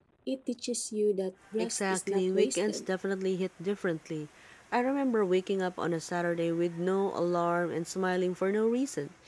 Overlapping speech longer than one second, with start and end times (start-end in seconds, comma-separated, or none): 1.6-2.8